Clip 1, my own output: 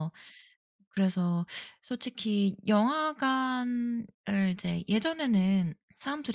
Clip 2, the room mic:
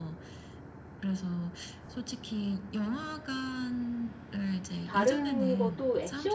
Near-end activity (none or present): present